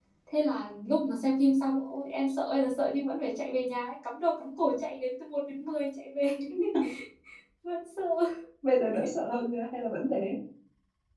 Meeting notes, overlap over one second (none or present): none